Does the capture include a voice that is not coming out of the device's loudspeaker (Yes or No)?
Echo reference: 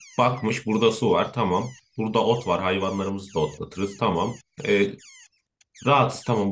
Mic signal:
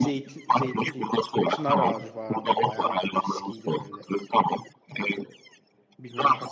Yes